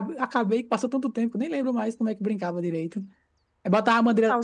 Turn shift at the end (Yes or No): No